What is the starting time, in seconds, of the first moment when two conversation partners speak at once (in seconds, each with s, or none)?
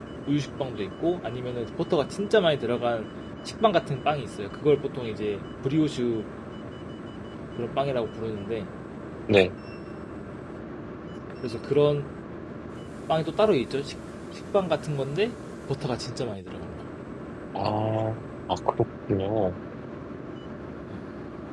none